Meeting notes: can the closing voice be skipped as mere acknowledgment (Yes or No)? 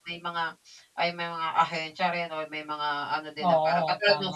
Yes